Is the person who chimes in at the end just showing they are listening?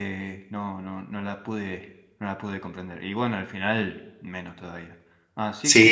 No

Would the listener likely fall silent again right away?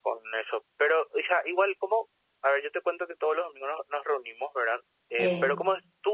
Yes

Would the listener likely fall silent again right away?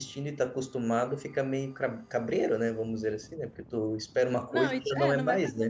No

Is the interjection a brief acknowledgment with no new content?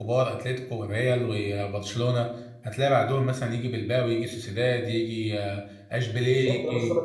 No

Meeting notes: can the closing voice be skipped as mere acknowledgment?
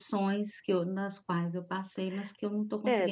No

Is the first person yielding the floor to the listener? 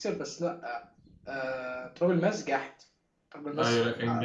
Yes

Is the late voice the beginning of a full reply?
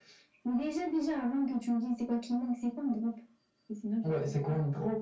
Yes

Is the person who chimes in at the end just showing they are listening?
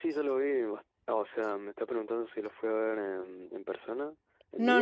No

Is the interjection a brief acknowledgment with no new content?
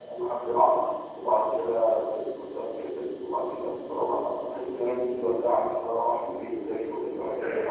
No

